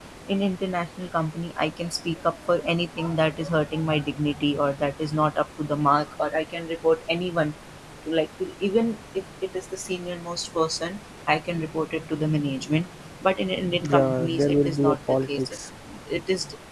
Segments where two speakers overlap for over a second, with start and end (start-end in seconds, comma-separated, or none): 13.9-15.6